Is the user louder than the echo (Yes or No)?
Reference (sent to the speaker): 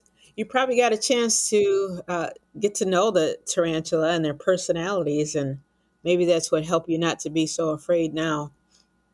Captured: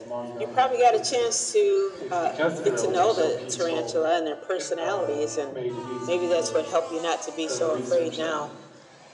No